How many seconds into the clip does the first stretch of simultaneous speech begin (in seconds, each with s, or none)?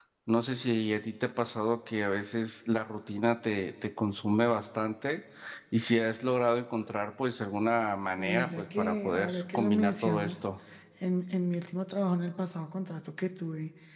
8.2 s